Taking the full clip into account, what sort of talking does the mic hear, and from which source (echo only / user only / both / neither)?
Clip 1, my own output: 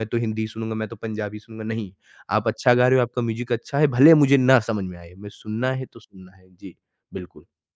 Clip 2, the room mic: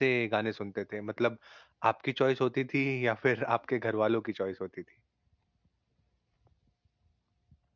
user only